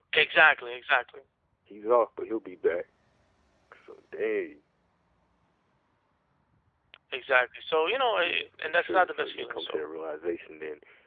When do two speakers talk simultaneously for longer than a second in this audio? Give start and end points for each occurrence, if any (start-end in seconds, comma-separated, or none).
8.2-9.8